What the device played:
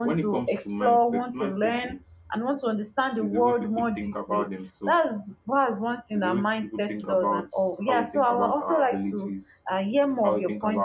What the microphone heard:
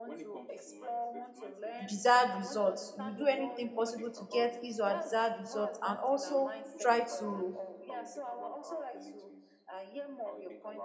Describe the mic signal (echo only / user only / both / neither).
both